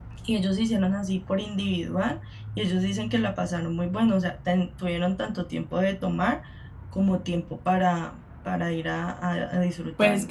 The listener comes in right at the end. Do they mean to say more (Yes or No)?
Yes